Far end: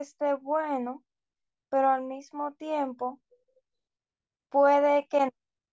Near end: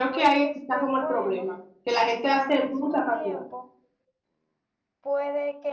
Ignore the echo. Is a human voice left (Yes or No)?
Yes